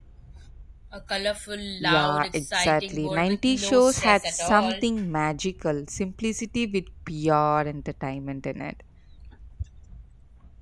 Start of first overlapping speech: 2 s

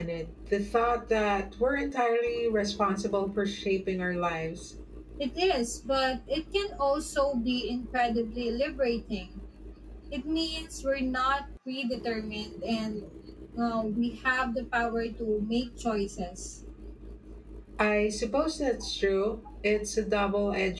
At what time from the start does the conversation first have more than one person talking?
none

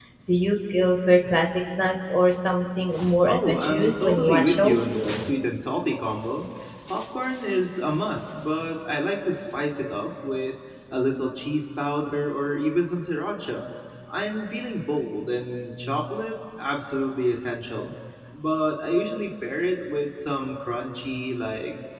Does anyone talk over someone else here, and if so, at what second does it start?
3 s

